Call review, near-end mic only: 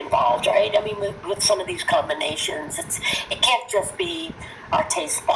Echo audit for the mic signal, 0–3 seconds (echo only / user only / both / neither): echo only